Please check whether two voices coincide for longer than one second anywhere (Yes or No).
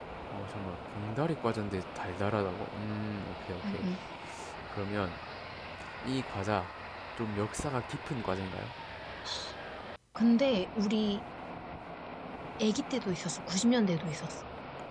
No